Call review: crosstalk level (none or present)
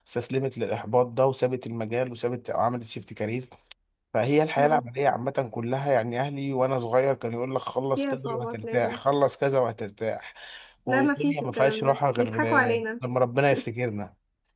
present